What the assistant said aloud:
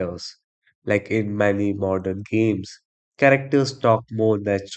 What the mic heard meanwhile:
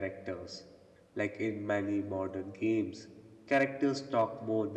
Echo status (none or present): present